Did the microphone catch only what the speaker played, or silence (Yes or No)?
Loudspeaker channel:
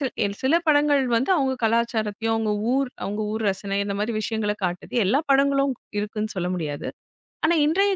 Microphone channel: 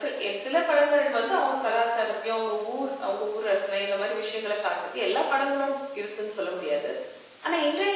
Yes